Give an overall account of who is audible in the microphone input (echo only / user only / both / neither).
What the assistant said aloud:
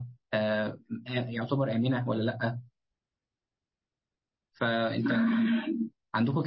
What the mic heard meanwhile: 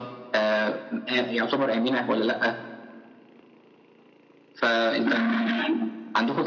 echo only